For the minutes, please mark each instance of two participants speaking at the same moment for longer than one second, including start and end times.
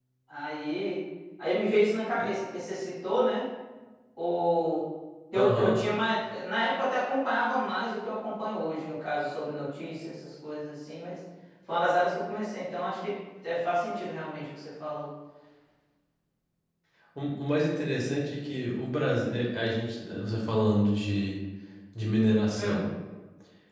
none

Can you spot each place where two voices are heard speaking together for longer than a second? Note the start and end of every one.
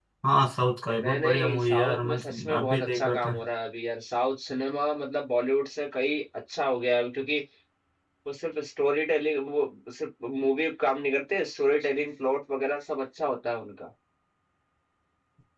1.0-3.4

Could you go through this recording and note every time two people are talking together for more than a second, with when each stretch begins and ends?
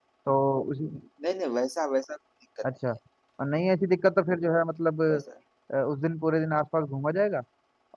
none

